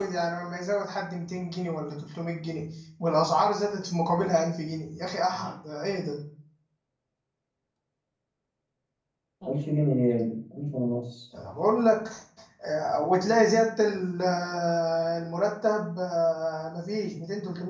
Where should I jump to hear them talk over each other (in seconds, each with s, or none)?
none